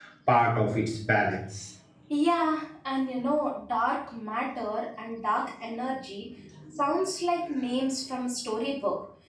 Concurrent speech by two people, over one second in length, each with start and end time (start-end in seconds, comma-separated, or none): none